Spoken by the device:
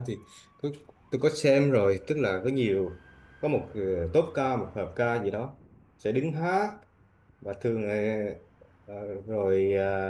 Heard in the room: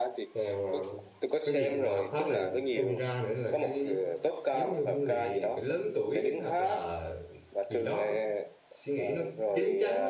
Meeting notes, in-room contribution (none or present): present